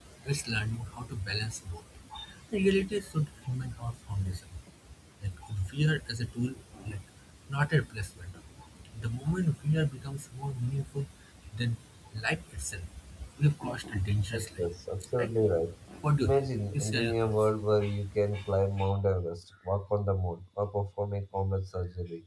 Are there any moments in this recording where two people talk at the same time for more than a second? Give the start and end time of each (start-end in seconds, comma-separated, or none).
16.2-17.5